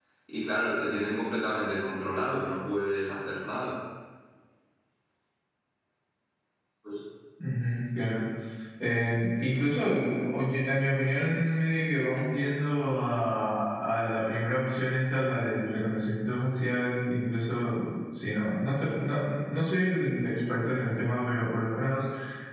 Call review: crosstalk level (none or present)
none